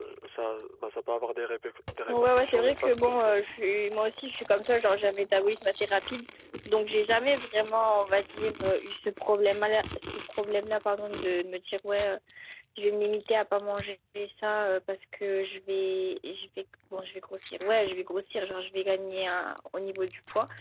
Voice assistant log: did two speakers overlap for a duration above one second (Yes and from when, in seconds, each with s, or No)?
Yes, from 2.1 s